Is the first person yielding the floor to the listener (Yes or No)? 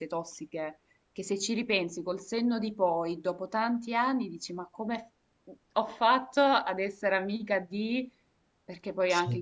No